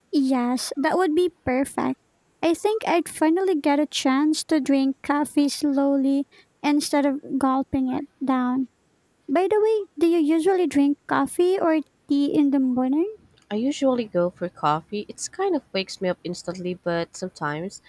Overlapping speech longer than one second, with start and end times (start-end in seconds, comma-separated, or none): none